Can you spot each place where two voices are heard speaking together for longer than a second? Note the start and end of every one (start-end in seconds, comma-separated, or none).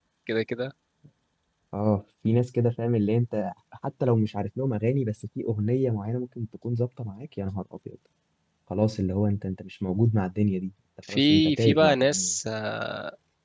11.1-12.3